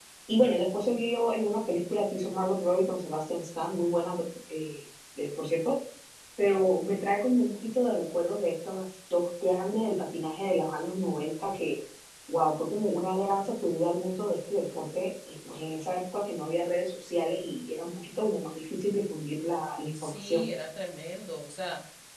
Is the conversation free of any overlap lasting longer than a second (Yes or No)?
Yes